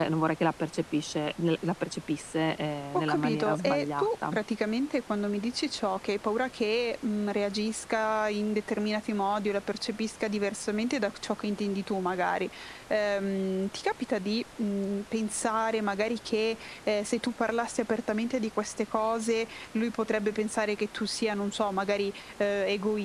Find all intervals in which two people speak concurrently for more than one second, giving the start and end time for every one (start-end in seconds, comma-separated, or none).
2.9-4.3